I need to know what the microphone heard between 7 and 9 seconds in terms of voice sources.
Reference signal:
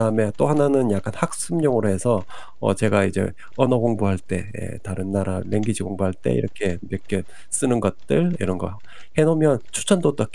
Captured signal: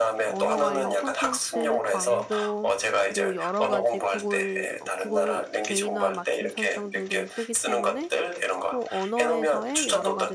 both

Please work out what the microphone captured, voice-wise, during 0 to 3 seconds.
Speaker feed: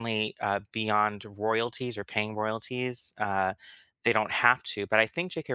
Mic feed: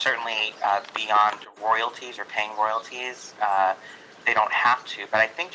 echo only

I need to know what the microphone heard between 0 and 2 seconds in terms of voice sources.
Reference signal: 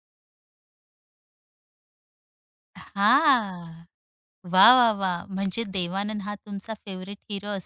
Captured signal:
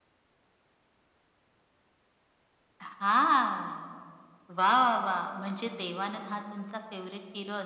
neither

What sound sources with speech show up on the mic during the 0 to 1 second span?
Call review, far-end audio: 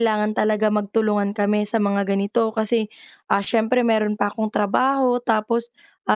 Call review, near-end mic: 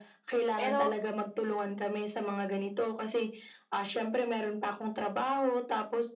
both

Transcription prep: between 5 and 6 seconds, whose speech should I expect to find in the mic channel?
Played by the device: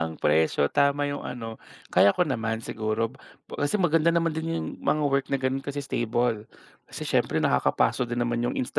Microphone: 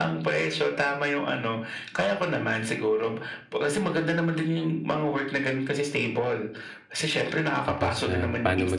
echo only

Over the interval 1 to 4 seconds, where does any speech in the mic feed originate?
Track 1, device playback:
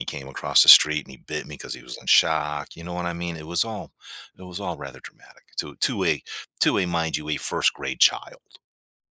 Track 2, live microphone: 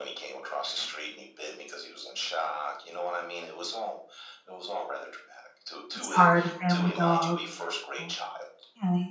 echo only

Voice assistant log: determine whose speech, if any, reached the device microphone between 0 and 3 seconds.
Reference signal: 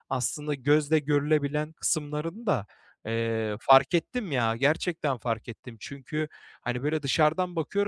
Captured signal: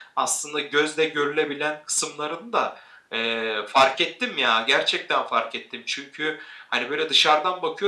echo only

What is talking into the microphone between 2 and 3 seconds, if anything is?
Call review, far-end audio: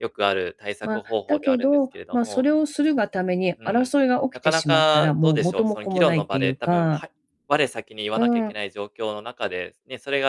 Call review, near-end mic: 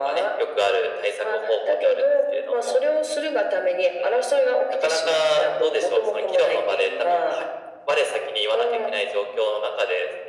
echo only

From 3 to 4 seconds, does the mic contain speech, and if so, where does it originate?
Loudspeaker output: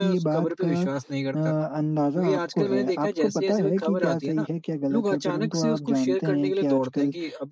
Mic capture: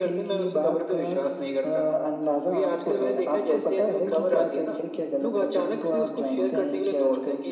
echo only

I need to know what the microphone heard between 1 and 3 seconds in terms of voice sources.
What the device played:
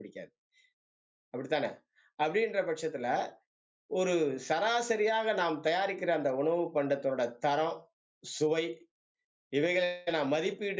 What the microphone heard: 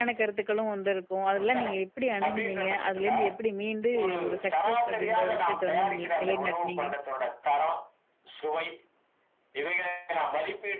both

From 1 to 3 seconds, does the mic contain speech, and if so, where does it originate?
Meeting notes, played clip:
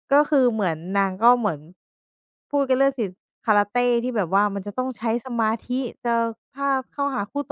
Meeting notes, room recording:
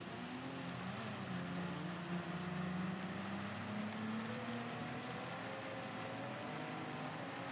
neither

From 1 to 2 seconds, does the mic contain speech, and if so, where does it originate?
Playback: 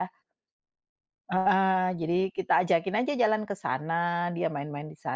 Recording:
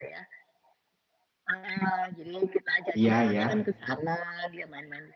echo only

